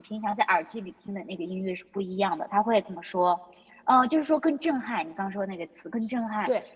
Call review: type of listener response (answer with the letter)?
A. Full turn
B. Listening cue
A